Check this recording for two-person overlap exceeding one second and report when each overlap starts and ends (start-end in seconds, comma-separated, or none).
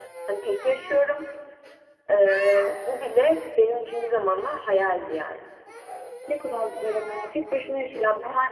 none